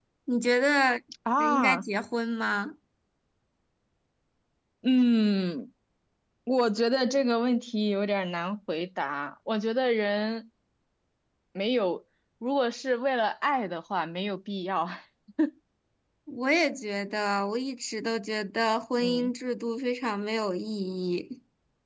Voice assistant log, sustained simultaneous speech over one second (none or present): none